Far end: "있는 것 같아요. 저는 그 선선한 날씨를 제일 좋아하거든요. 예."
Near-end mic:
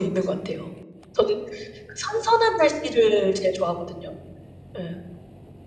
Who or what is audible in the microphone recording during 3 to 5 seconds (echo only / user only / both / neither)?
echo only